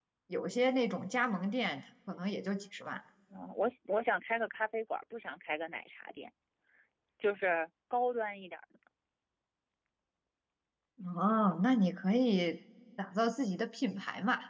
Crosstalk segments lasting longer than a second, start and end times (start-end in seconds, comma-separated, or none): none